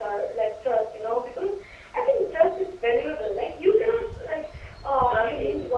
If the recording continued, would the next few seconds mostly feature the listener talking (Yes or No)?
No